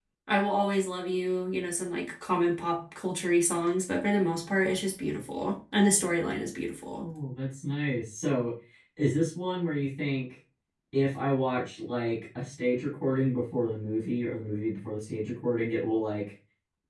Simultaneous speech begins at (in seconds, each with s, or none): none